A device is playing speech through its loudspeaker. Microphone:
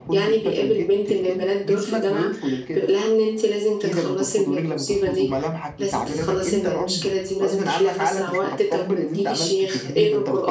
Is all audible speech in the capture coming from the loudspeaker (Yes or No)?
No